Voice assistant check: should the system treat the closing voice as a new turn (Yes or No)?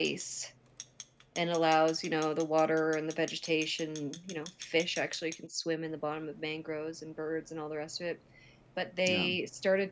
No